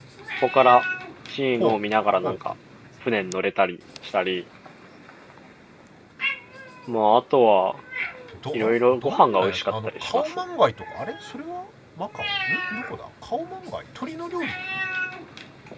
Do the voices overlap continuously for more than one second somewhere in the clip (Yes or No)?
Yes